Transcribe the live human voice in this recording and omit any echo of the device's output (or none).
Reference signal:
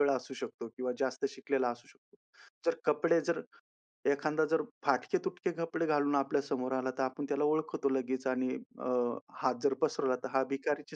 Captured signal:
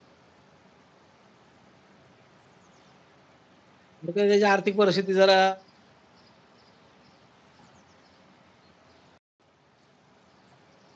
तर त्याची आर्थिक परिस्थिती जरा